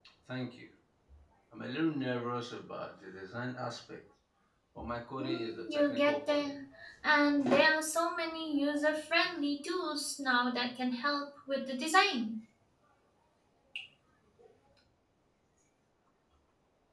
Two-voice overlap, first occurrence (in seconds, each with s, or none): 5.2 s